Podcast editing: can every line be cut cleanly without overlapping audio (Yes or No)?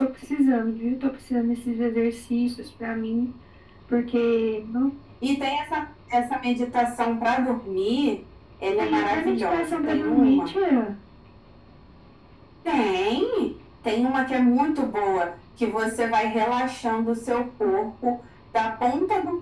No